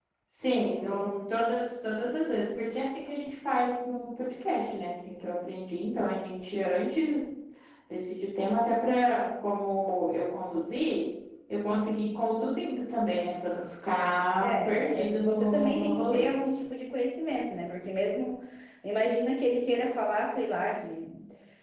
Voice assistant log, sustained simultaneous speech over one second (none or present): present